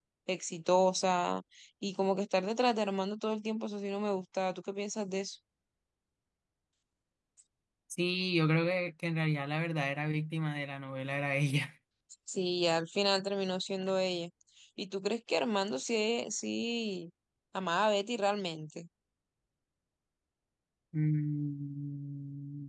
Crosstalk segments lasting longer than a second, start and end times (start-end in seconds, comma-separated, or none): none